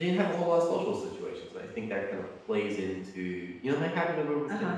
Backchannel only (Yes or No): No